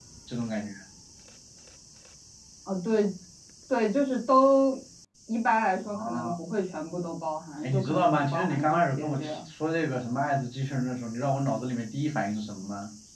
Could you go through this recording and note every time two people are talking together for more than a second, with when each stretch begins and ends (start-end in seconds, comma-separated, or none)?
7.6-9.4